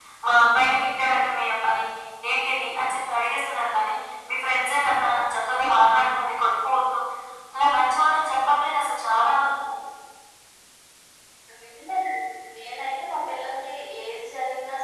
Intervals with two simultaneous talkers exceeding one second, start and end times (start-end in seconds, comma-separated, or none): none